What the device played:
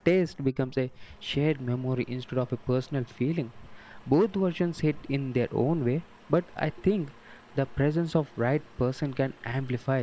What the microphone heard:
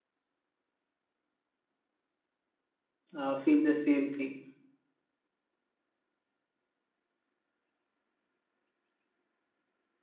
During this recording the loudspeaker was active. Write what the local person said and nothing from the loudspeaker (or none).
uh, feel the same thing.